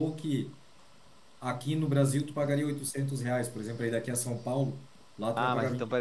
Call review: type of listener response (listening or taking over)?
taking over